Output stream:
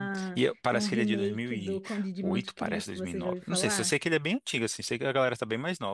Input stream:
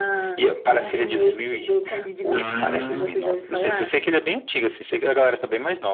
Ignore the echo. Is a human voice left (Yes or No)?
Yes